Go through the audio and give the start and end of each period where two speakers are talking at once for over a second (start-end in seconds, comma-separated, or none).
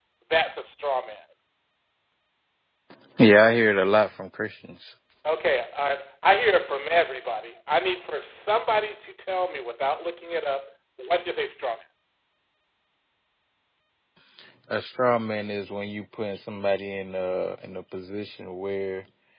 none